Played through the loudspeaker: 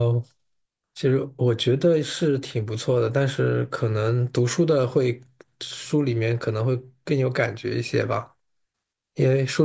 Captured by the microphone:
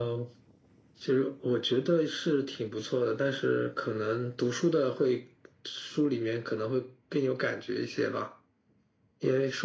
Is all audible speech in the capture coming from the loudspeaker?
Yes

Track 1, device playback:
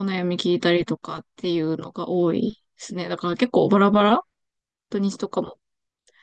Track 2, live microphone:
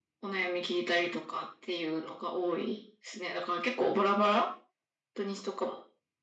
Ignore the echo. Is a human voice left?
No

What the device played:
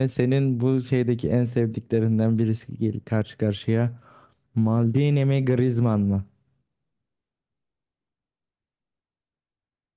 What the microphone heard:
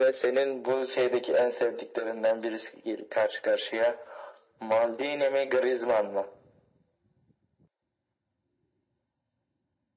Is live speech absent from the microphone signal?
Yes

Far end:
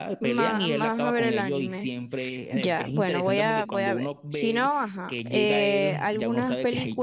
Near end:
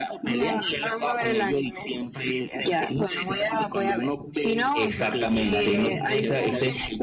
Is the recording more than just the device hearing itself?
Yes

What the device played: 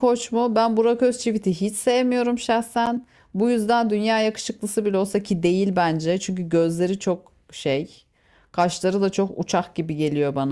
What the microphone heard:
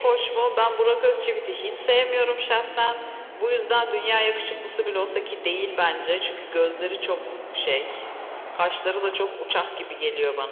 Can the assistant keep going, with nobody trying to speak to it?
Yes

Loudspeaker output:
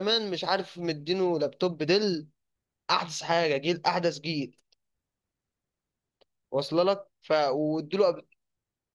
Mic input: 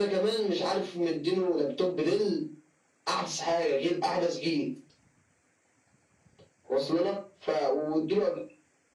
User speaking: No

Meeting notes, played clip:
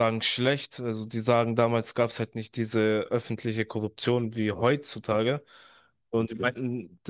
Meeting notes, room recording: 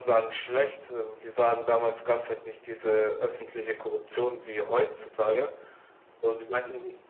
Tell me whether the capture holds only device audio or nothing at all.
Yes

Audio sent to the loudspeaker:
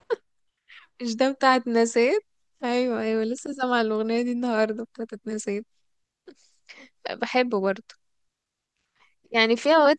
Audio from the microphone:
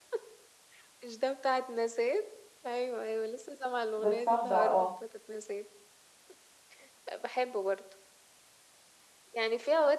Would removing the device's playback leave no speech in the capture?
No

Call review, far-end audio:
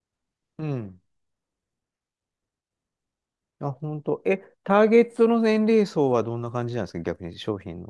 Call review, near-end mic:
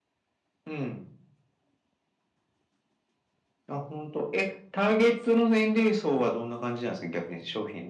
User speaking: No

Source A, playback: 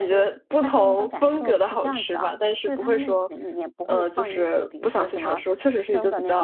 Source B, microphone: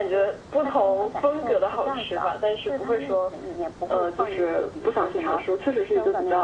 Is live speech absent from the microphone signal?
Yes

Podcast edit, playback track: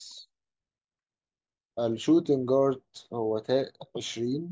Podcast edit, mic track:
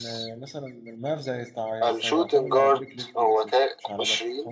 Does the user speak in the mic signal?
Yes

